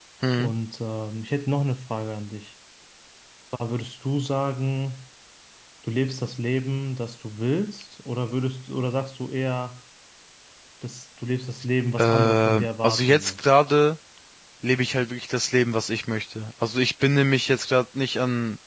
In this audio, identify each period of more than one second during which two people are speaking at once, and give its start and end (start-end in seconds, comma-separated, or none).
12.0-13.3